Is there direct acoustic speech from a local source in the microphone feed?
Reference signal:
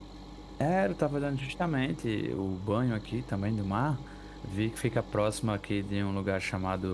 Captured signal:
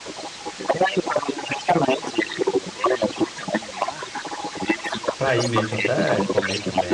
Yes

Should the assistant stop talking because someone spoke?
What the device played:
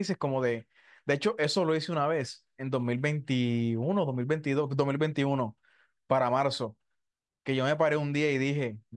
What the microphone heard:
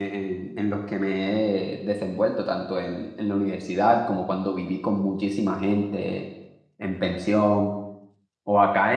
Yes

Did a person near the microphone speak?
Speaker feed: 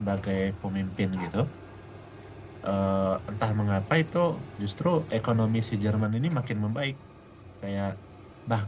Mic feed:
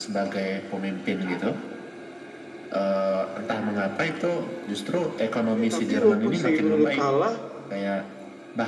Yes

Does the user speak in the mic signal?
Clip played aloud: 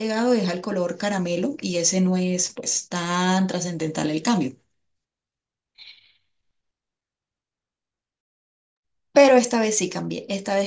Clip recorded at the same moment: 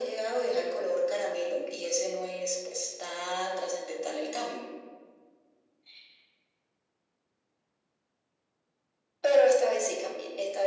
No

